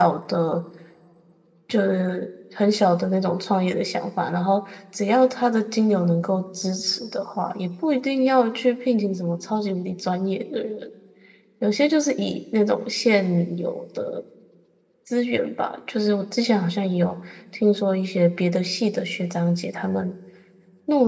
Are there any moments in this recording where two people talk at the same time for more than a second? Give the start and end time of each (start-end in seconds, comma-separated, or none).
none